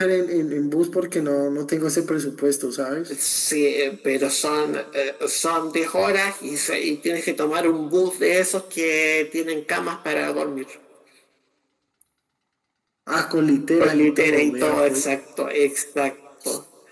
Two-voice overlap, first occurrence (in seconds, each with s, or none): 13.8 s